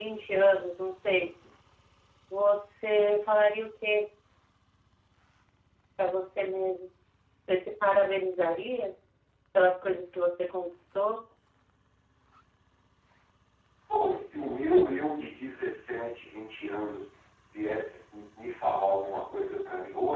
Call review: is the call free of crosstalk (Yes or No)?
Yes